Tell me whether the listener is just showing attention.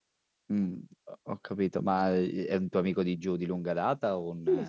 No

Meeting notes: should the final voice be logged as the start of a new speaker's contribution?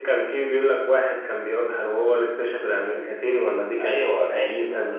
Yes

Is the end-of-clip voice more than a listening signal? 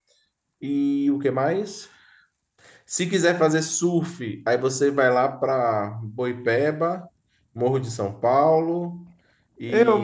Yes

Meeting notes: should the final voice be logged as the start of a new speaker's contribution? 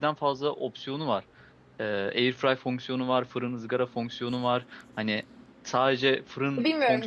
Yes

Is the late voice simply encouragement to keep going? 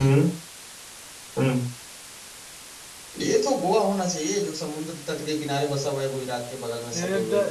No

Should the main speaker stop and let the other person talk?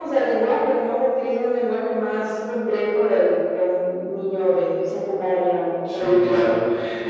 Yes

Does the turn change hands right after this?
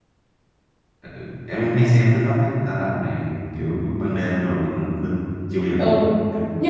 Yes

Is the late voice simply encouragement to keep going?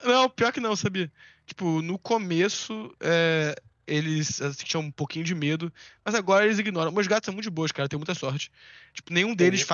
Yes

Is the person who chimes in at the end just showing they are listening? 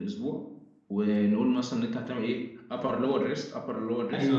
No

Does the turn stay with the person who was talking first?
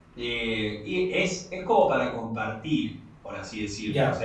Yes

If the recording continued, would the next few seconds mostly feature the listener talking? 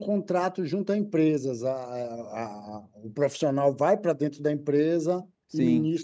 Yes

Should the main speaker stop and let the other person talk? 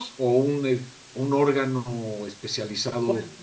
Yes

